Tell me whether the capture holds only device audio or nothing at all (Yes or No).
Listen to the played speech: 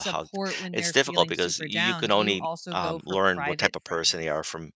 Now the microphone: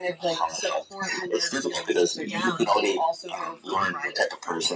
No